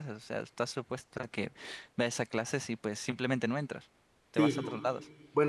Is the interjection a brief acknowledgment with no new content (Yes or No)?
No